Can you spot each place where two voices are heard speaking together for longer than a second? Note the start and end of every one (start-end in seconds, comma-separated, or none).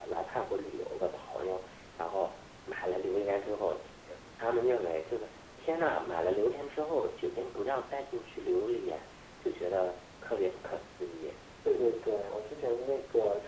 none